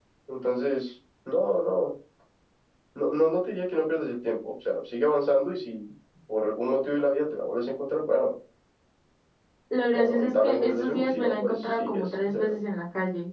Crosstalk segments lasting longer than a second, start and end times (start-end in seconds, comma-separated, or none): 9.9-12.4